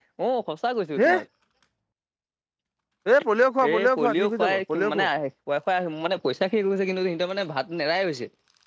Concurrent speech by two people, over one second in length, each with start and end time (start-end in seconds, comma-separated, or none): 3.7-5.1